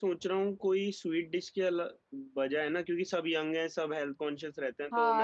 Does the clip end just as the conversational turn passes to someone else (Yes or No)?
No